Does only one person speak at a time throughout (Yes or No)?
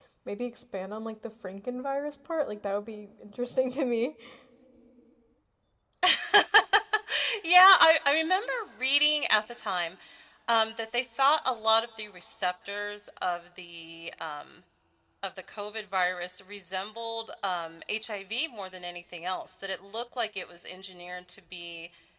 Yes